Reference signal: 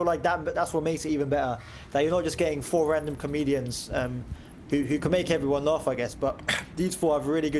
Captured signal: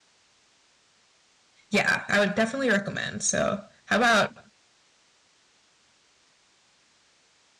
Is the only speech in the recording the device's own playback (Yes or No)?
No